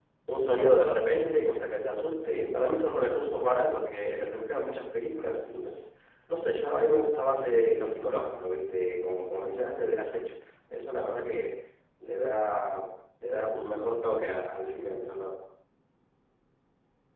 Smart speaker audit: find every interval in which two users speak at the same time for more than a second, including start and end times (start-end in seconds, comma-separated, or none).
none